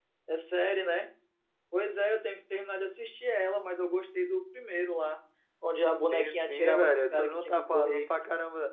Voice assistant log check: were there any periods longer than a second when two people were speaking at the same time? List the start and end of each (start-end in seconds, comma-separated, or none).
6.1-8.0